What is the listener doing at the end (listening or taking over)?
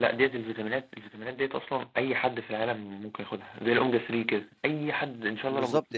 taking over